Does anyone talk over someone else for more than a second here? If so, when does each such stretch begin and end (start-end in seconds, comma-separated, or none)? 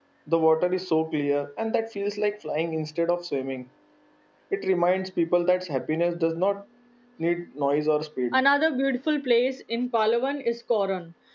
none